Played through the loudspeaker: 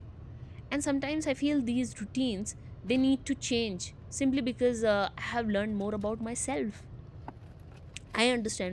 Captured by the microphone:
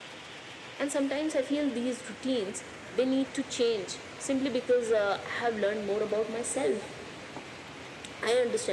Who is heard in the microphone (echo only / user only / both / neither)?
echo only